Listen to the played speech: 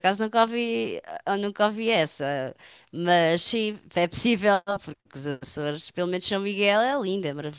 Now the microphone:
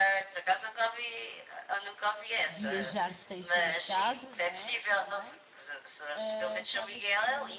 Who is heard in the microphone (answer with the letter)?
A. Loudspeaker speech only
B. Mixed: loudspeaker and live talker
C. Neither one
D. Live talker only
B